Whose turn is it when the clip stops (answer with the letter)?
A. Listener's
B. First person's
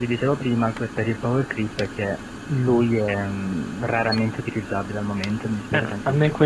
A